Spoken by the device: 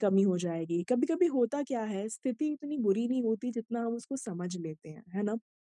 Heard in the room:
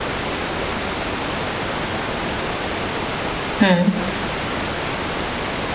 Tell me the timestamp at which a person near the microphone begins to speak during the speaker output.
3.6 s

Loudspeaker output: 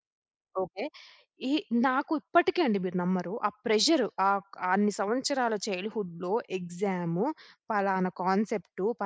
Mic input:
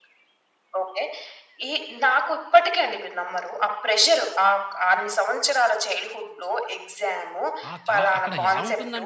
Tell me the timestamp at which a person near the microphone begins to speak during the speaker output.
7.7 s

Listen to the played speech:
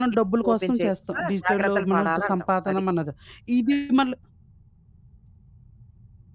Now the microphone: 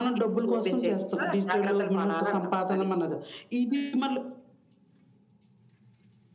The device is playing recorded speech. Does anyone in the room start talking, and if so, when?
none

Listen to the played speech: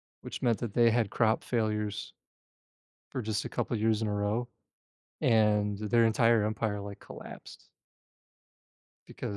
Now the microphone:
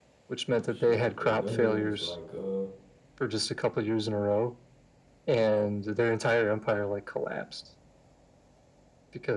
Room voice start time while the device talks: 0.6 s

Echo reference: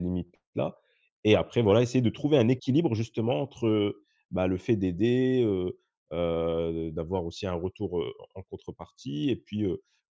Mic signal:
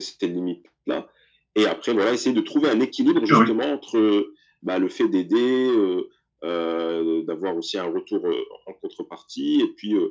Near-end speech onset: 3.0 s

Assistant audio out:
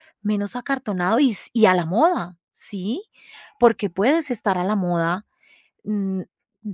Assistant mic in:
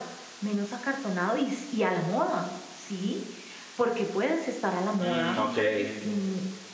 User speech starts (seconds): 5.0 s

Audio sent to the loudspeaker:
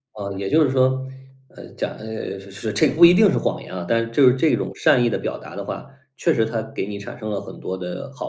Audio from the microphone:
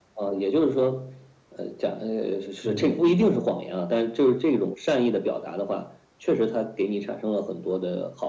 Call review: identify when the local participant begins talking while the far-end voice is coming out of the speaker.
2.6 s

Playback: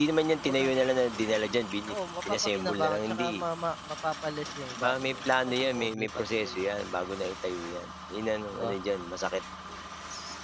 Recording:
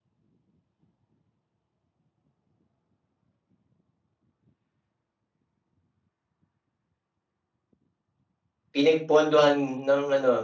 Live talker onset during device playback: 8.7 s

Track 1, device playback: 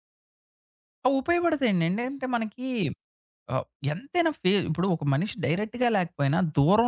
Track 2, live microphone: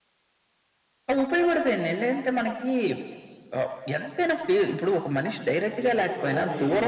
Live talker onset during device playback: 5.8 s

